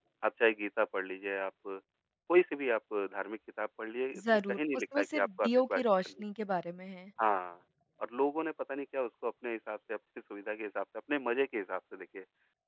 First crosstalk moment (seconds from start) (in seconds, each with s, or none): 4.2 s